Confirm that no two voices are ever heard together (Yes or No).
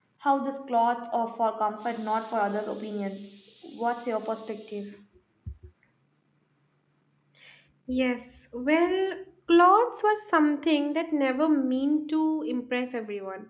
Yes